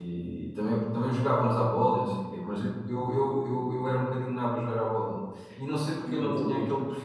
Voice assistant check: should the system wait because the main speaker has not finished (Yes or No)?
Yes